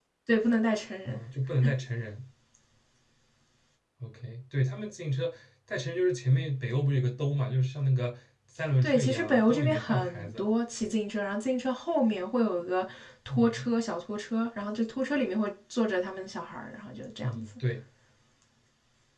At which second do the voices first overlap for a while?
8.8 s

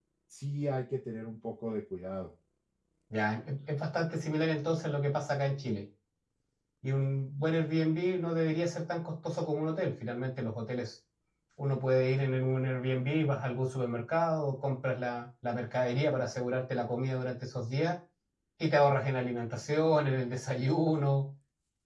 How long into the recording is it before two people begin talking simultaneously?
none

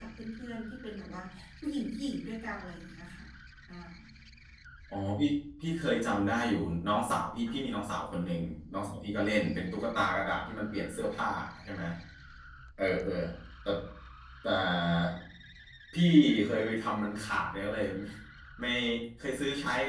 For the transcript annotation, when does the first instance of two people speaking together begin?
none

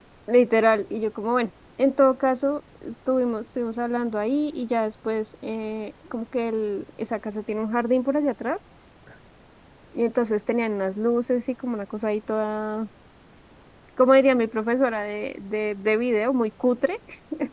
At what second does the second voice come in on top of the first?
none

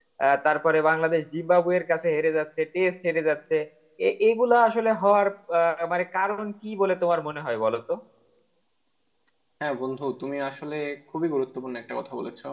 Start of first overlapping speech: none

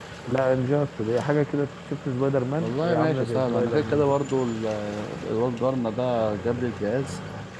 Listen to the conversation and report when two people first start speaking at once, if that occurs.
2.6 s

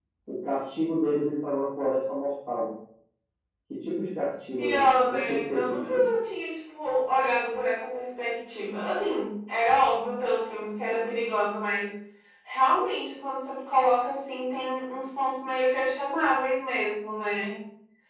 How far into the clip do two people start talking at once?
4.6 s

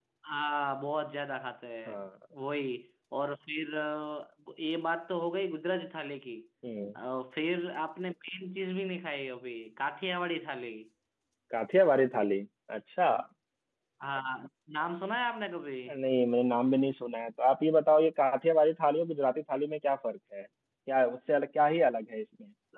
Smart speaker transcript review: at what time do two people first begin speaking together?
none

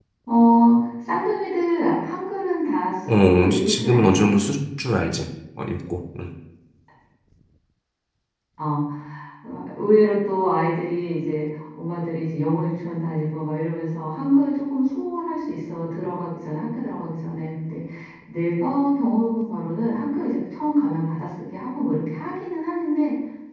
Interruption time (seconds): 3.1 s

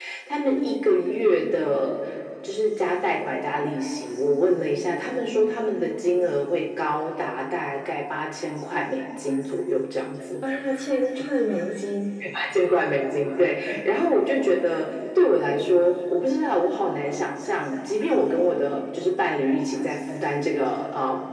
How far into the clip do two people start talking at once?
none

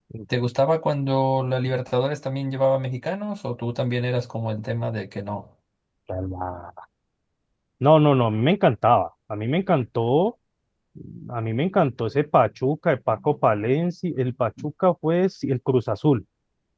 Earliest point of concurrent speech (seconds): none

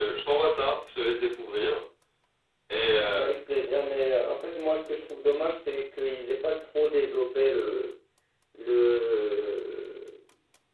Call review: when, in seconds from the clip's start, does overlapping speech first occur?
none

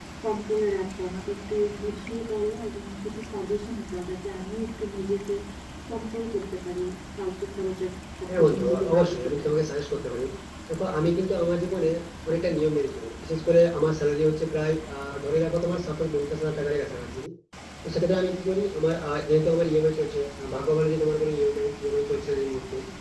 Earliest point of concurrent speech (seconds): 8.3 s

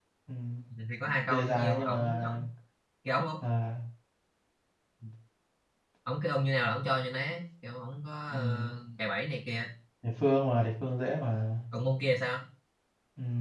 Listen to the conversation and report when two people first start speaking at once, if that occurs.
1.1 s

